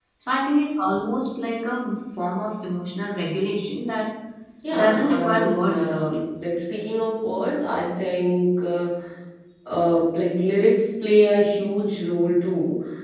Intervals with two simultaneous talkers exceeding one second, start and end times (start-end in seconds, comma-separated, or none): 4.8-6.2